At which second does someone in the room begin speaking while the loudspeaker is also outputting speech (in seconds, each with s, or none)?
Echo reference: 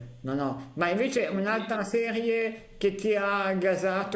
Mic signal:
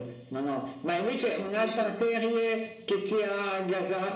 none